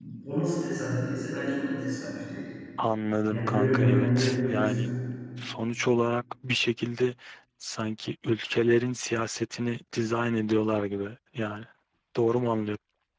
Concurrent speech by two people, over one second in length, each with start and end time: 3.3-4.9

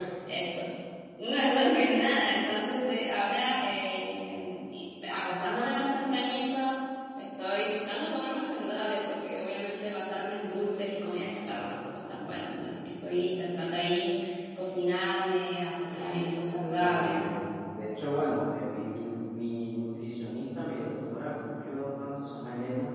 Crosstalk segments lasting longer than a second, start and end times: none

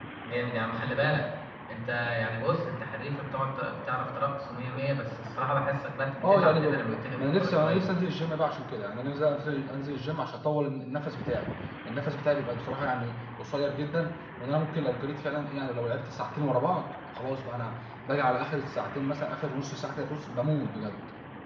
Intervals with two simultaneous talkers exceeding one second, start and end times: 6.2-7.9

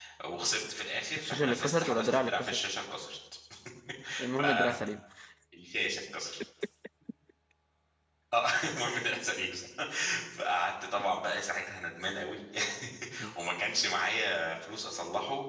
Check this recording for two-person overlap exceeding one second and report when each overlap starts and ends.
1.2-2.6

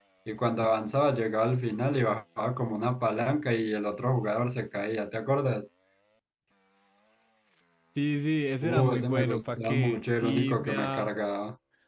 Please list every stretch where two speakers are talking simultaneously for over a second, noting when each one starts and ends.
8.6-11.1

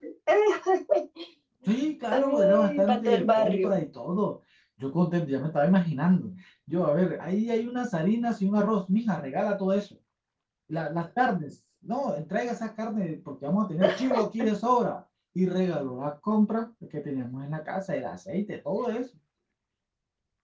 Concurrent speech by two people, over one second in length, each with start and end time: 2.1-3.8

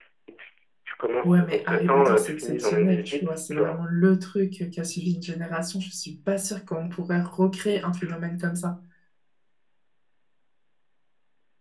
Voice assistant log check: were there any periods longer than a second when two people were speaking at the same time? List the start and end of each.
1.2-3.8

